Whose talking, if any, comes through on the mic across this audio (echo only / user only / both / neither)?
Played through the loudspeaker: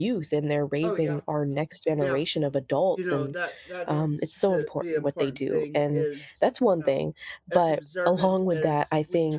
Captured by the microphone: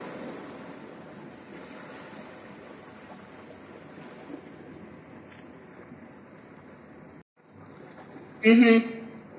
user only